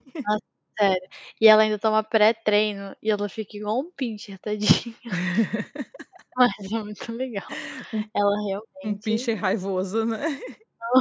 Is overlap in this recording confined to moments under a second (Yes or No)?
Yes